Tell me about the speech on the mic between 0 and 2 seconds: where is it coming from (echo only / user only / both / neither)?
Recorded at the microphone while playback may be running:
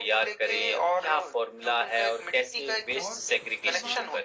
echo only